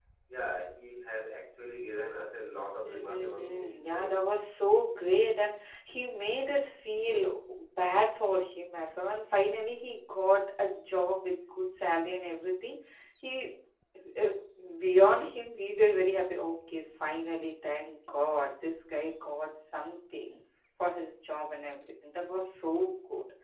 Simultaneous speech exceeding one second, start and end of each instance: 2.8-4.2

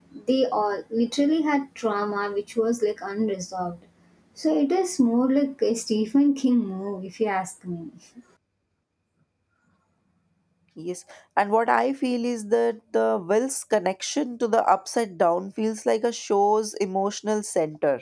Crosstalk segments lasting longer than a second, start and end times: none

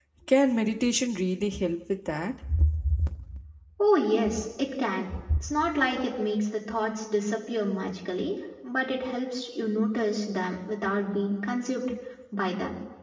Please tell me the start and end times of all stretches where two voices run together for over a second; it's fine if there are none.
none

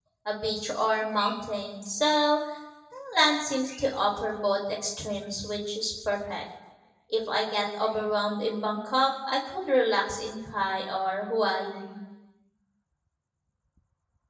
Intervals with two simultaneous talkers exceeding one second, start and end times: none

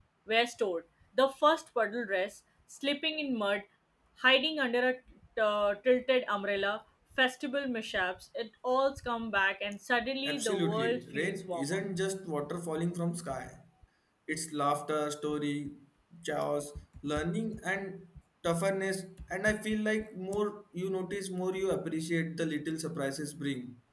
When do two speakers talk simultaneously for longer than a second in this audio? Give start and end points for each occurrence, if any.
10.2-11.8

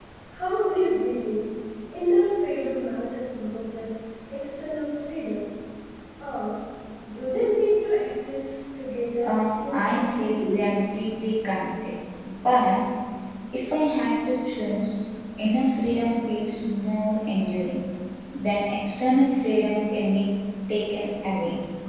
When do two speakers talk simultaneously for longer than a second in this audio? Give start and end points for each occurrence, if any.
9.2-10.6

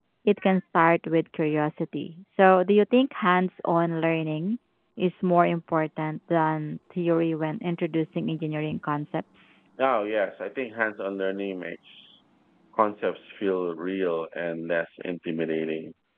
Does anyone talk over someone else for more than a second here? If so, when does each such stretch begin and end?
none

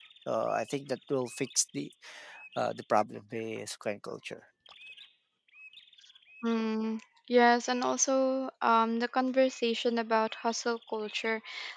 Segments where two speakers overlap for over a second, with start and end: none

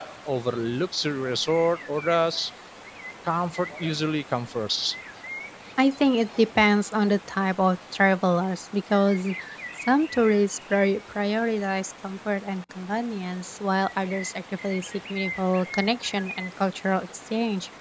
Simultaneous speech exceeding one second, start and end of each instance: none

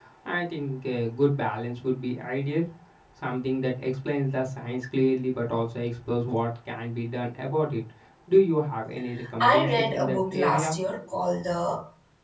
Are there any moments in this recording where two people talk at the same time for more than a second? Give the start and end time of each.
9.4-10.8

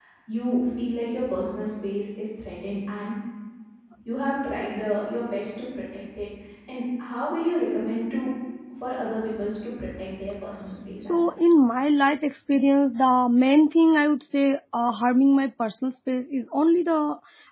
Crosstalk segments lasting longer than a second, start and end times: none

